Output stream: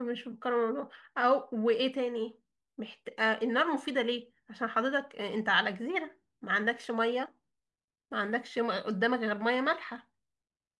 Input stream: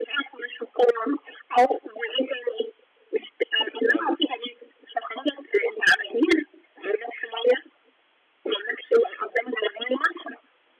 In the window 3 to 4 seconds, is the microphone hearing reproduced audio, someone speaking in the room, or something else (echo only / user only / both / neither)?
both